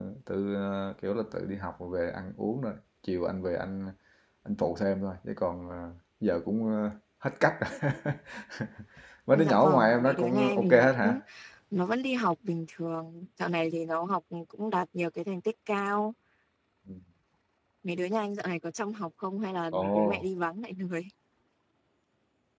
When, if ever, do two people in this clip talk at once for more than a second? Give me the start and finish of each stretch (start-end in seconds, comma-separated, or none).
9.3-11.2